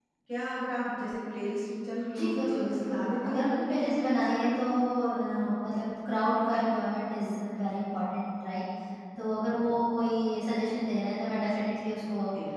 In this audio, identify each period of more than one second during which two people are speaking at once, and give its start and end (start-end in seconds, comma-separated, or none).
2.2-4.4